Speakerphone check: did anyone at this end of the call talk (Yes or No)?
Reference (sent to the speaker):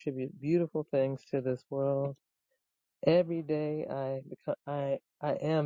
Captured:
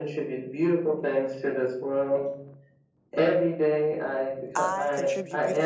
Yes